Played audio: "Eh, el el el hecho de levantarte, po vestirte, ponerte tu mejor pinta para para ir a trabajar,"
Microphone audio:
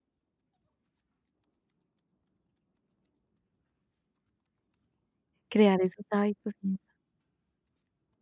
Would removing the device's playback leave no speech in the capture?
No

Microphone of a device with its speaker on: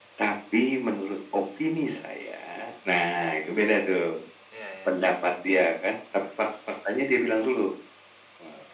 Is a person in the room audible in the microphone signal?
Yes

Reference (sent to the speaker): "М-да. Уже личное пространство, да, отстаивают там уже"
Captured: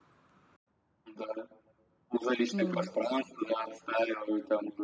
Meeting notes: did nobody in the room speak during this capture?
No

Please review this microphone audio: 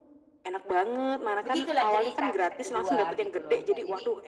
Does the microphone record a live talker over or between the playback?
Yes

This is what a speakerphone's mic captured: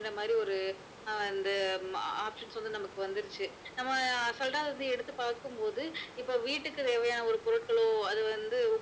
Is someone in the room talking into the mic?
No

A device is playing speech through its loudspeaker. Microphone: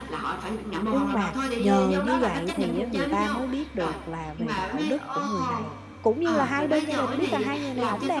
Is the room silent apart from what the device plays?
No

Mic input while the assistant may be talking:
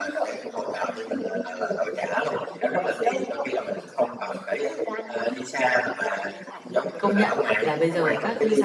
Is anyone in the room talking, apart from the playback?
Yes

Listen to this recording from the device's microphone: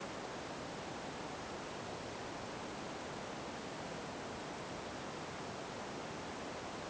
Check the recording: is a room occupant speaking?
No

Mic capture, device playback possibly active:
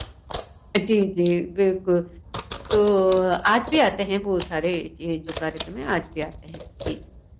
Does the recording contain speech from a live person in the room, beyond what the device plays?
Yes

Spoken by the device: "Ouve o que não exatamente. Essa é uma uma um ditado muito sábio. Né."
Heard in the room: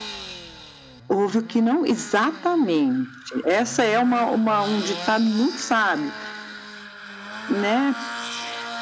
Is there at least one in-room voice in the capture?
No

